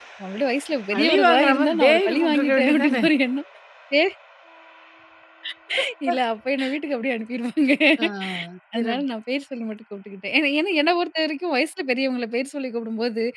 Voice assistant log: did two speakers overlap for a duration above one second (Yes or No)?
Yes